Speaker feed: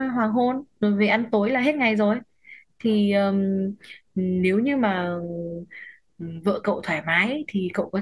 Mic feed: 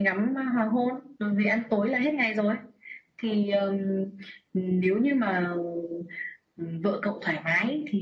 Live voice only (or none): none